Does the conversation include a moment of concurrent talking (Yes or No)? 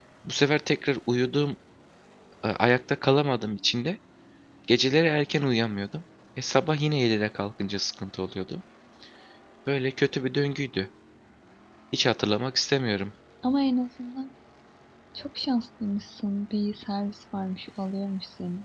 No